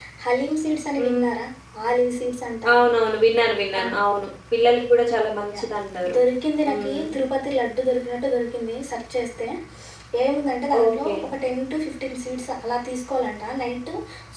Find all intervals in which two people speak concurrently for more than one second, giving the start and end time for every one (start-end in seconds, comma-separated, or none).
none